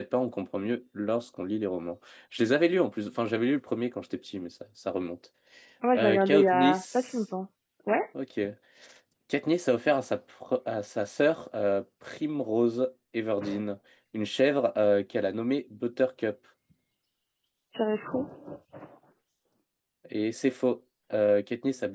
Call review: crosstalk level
present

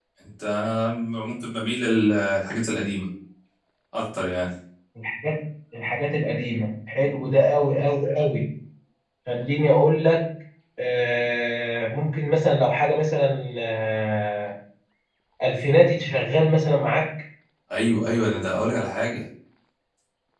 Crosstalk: none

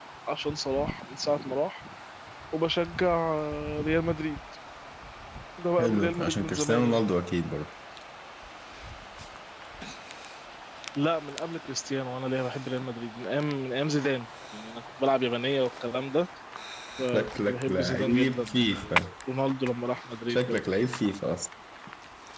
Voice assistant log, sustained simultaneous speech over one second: present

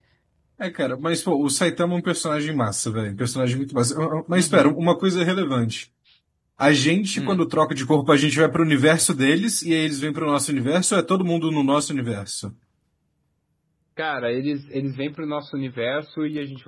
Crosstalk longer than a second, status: none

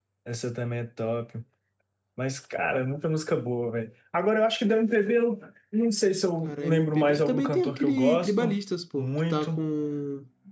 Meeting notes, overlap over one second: present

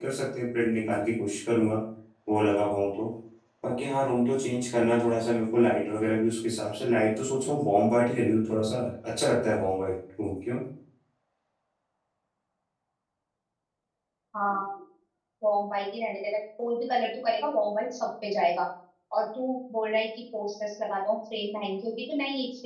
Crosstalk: none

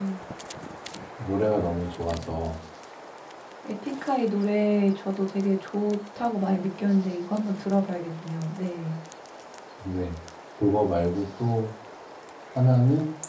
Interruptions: none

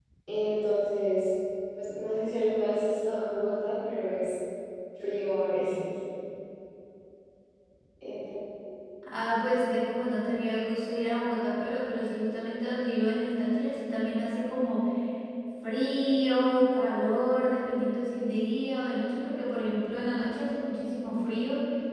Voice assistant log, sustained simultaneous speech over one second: none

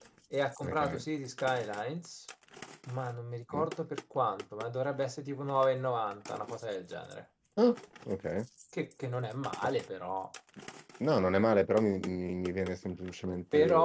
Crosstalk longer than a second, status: none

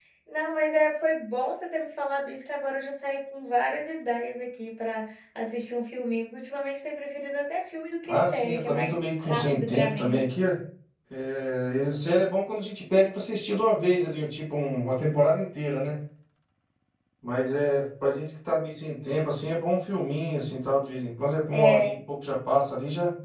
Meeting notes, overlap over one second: present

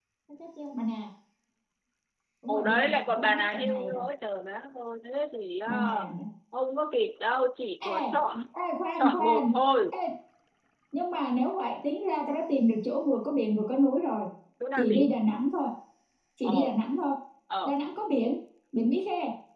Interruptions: present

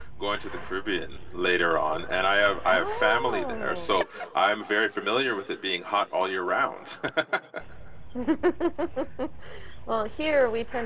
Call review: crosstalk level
present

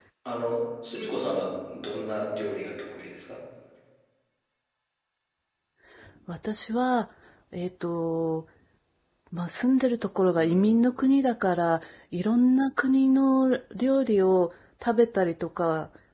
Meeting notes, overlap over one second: none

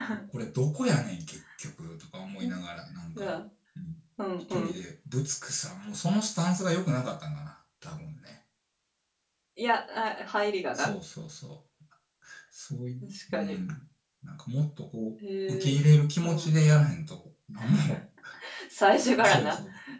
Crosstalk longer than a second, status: none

